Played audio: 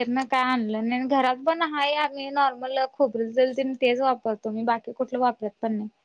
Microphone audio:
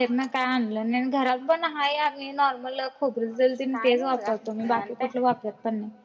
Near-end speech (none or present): present